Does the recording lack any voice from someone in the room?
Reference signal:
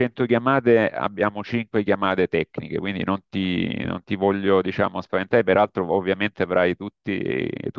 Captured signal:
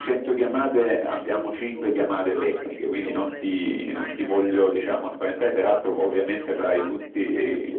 No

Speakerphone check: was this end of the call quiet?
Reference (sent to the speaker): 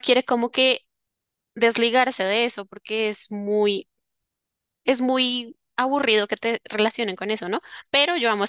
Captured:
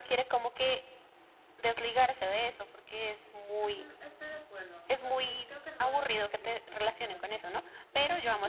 No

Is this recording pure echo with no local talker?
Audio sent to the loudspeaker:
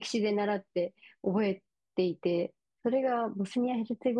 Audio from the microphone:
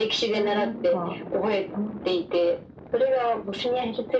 No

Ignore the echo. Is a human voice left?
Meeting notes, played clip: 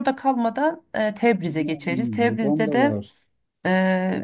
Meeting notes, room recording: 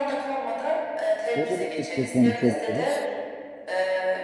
Yes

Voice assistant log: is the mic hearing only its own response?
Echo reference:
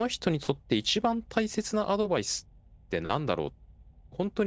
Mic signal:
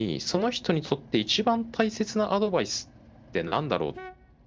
Yes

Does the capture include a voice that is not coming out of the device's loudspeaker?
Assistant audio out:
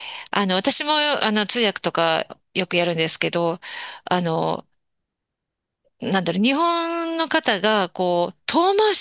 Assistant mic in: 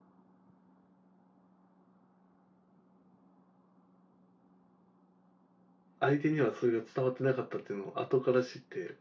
Yes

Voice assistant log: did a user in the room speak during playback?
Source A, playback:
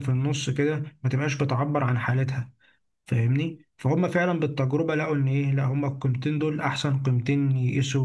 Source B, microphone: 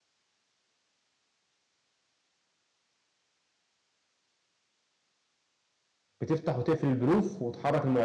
Yes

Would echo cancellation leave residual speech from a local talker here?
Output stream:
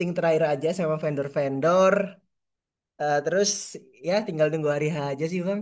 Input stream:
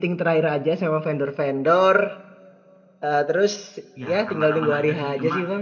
Yes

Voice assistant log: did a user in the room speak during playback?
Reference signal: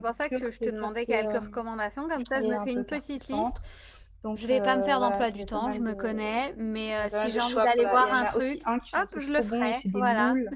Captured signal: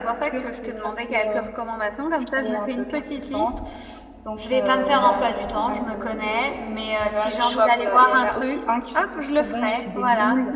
No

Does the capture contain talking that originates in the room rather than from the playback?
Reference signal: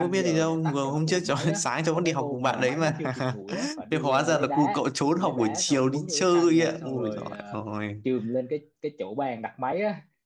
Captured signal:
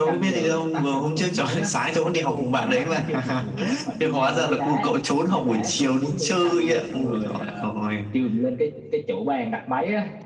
No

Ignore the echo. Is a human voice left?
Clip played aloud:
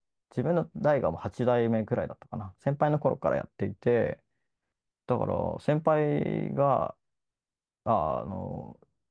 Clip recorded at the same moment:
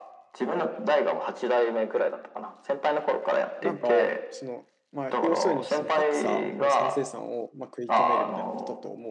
Yes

